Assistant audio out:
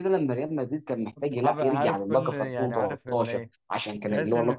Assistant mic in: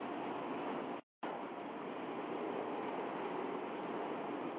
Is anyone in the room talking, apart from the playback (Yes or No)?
No